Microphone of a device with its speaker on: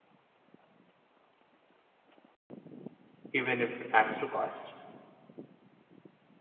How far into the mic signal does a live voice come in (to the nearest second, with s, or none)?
3 s